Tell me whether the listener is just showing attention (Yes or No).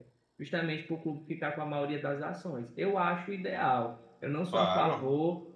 Yes